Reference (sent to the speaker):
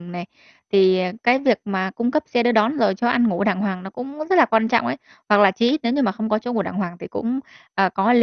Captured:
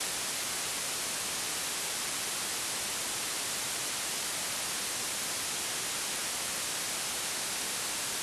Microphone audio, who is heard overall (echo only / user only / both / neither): neither